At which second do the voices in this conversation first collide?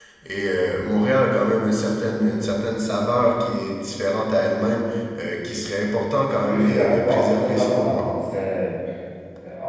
6.5 s

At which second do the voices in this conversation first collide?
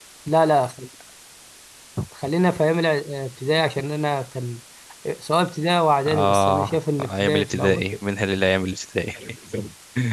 6.1 s

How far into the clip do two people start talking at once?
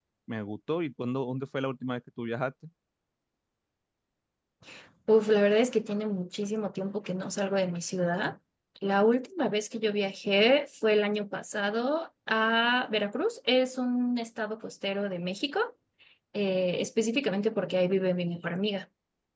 none

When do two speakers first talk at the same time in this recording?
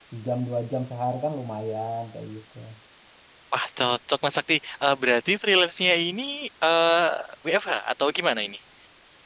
none

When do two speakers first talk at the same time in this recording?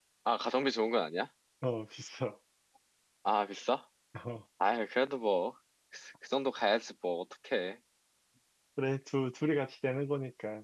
none

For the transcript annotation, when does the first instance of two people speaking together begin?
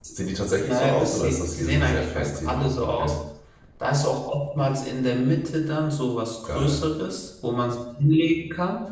0.7 s

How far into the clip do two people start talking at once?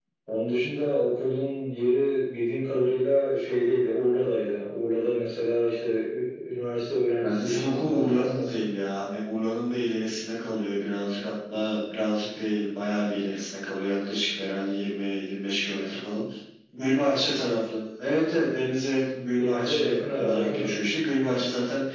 7.2 s

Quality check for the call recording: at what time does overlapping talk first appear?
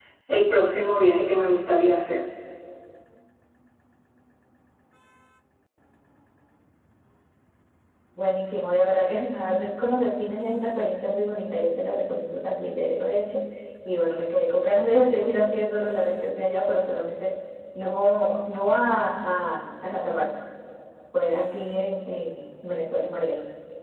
none

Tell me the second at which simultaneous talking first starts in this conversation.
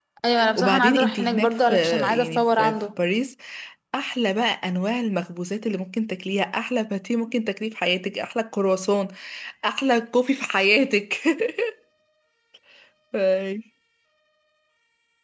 0.6 s

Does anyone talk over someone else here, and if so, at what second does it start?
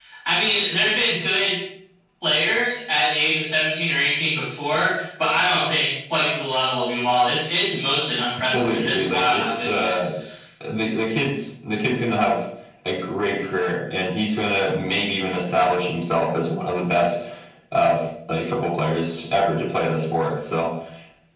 8.4 s

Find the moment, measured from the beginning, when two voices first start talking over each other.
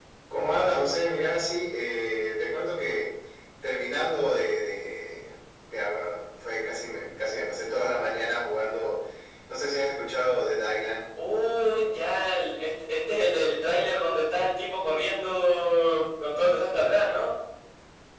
none

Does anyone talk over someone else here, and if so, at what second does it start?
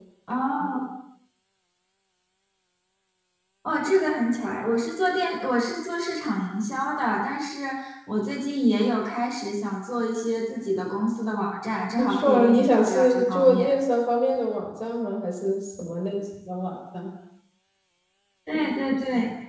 12.0 s

